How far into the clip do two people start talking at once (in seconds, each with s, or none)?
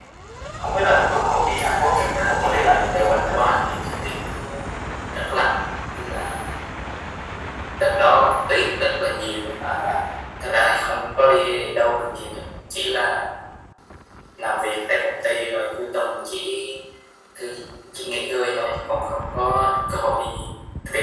1.6 s